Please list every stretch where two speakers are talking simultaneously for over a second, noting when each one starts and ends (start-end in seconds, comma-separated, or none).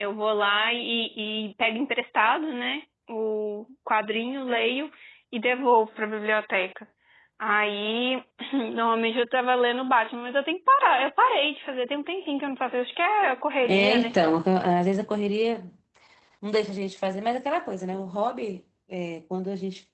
none